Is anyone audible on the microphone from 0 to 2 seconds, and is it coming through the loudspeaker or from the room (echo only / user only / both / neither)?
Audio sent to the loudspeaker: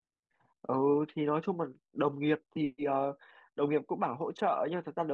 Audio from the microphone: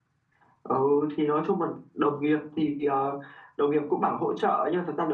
echo only